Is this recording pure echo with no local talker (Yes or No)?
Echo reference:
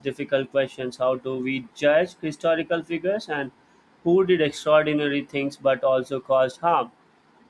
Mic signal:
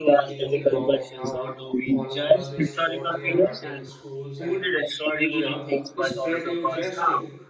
No